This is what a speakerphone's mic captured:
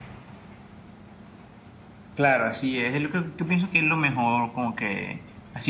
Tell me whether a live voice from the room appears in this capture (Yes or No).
Yes